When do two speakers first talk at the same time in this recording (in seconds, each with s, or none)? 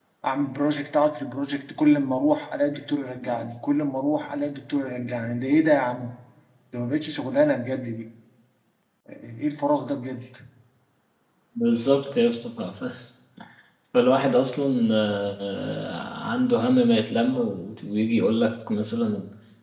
none